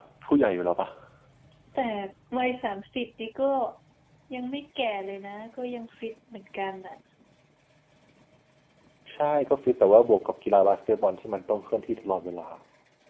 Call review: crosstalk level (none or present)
none